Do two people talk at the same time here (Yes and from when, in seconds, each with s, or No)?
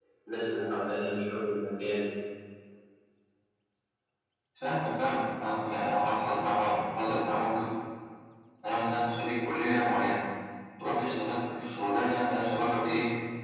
No